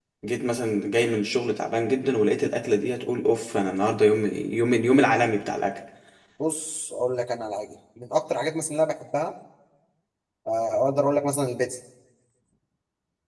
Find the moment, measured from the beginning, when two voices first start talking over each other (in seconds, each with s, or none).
none